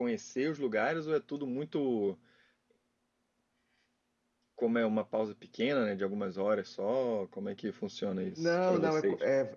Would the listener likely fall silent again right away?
No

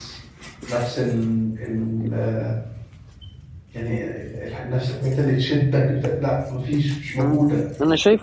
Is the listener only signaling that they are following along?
No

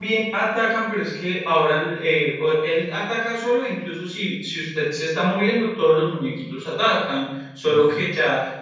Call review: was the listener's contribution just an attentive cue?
Yes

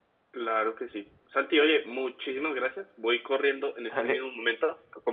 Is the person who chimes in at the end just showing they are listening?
Yes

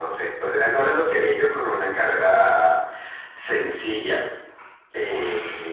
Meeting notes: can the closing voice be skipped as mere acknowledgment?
No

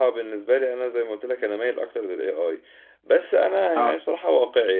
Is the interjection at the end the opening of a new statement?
No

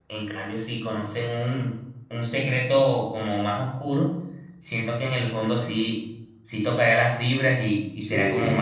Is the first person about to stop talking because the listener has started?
No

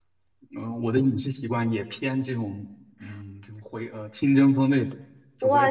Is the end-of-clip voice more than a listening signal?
Yes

